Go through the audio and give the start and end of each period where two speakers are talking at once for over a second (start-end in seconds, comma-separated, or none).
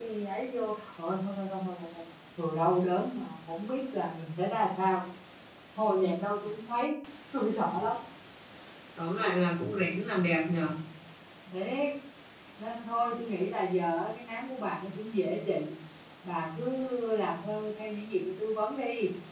none